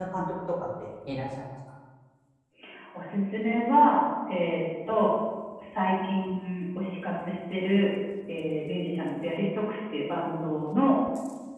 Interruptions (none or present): none